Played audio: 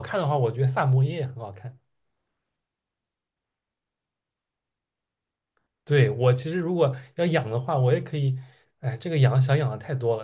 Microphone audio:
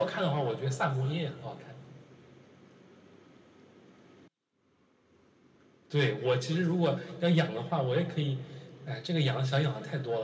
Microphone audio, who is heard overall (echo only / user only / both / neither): echo only